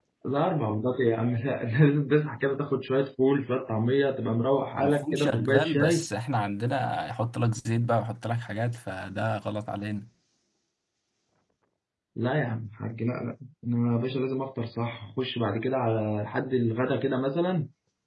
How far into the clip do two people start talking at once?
4.8 s

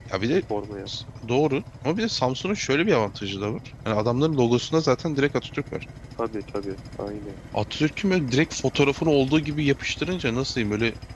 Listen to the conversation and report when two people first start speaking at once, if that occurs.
none

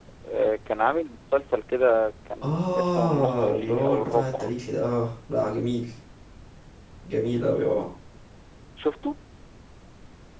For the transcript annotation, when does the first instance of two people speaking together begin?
2.4 s

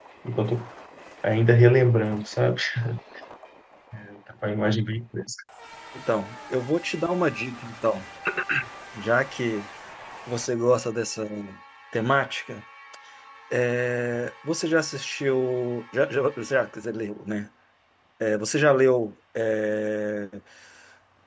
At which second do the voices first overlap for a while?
none

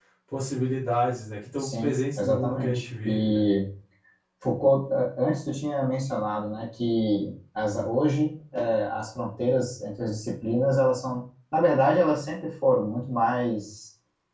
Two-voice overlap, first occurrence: 1.6 s

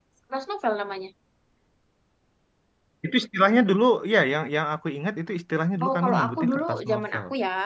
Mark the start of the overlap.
5.8 s

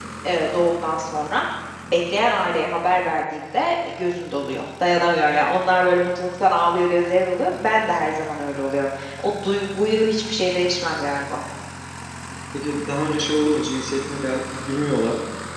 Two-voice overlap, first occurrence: none

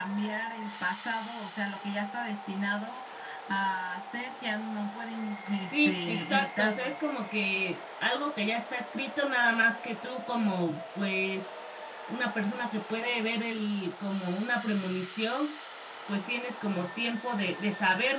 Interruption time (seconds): 5.7 s

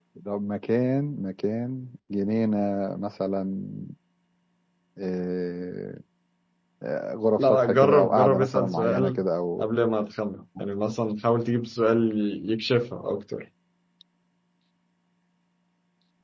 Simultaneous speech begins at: 7.4 s

